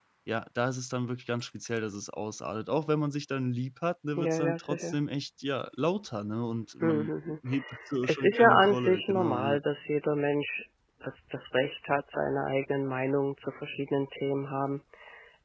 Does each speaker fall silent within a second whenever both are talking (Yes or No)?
No